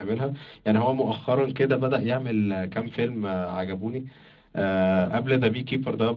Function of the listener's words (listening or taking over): listening